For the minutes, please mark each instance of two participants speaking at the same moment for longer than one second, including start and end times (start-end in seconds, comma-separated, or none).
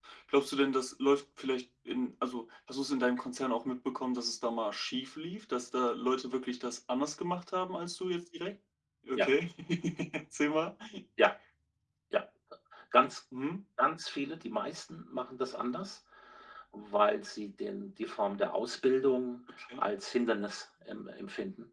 none